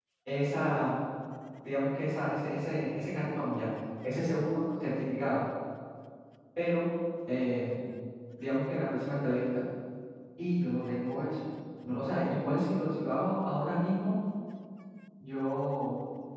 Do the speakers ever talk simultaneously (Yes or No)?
No